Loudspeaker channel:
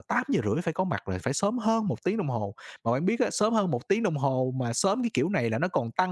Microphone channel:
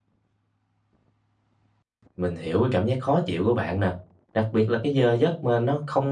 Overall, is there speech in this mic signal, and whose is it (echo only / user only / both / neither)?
user only